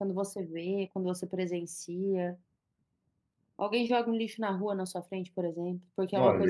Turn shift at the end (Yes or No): Yes